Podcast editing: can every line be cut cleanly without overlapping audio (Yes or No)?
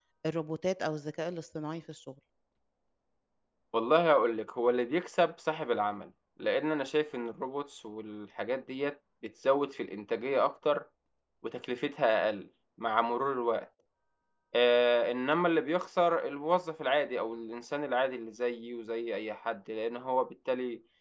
Yes